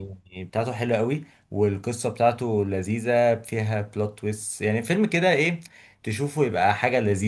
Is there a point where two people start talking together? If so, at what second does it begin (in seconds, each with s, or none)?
none